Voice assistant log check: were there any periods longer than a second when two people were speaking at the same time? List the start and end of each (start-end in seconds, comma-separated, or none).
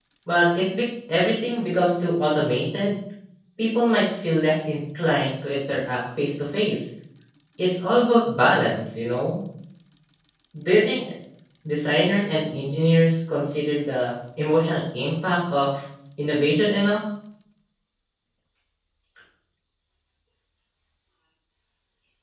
none